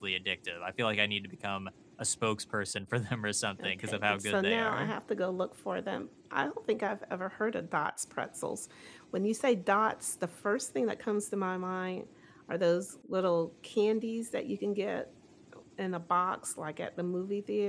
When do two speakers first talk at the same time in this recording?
4 s

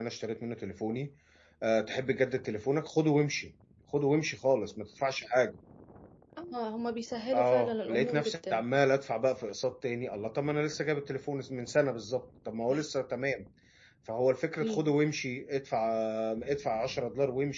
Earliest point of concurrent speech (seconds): 7 s

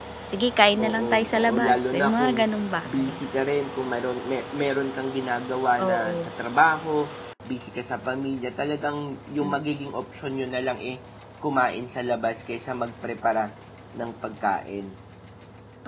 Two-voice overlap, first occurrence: 1 s

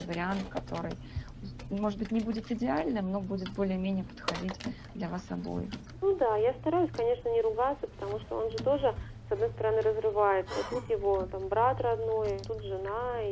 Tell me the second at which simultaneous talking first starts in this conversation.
none

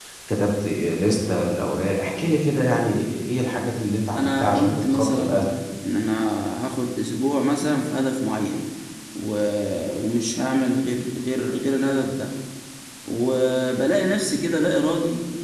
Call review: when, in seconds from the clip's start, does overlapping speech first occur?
4 s

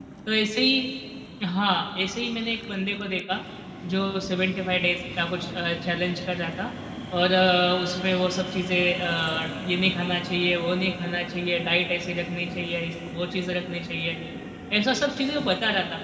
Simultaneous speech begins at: none

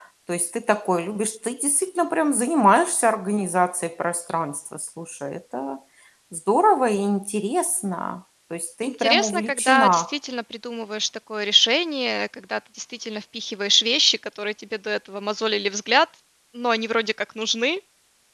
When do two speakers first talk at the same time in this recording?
9 s

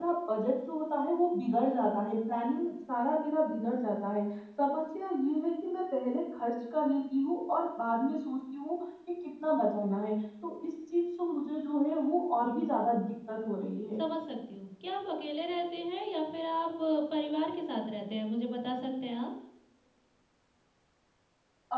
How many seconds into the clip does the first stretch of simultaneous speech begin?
none

